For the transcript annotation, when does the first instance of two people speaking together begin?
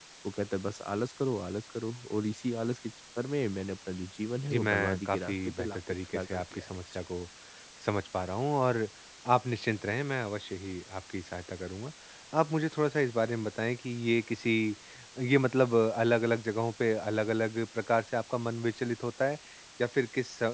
4.5 s

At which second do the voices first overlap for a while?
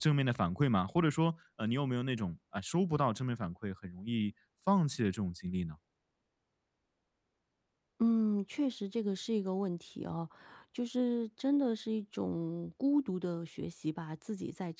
none

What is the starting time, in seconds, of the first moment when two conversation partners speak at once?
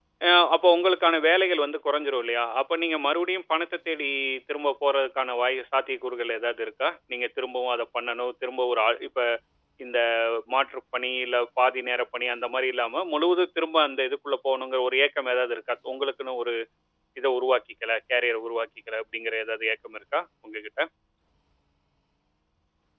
none

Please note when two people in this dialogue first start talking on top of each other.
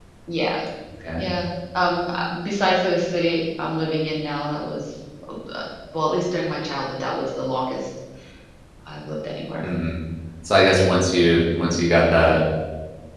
none

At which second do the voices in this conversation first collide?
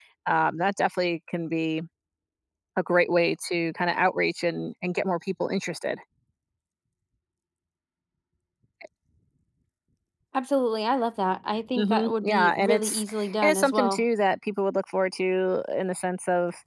11.8 s

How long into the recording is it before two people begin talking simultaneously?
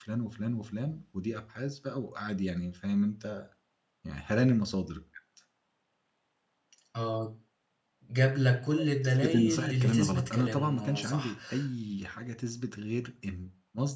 8.7 s

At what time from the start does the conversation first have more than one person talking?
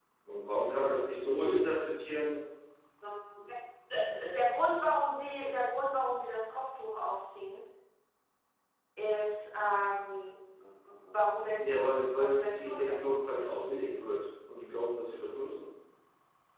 11.6 s

